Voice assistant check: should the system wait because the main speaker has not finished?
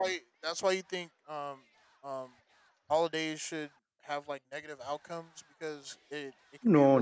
No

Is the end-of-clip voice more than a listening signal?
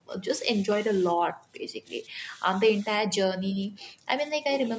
Yes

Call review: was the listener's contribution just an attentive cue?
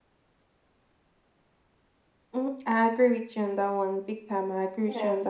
Yes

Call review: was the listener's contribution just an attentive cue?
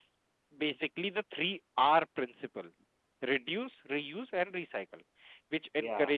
Yes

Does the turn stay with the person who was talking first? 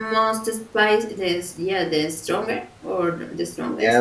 No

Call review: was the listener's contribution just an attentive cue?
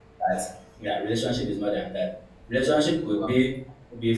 Yes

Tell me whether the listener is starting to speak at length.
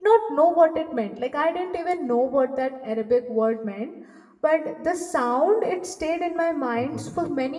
No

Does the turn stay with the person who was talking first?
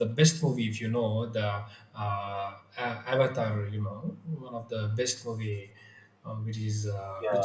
No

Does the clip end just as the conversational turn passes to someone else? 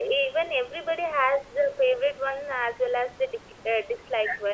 No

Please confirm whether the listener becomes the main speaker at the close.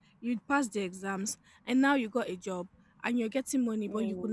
No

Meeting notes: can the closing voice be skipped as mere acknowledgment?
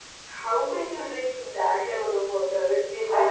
No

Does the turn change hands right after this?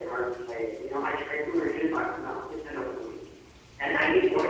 Yes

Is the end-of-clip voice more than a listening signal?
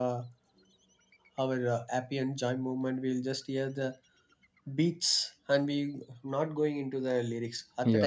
No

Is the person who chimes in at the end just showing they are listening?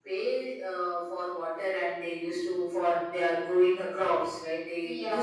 Yes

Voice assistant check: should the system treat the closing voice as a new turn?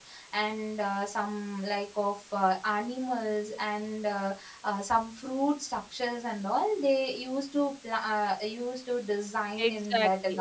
Yes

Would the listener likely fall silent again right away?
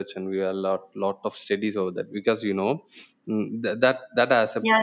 No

